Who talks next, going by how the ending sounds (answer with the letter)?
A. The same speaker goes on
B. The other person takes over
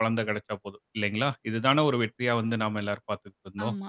B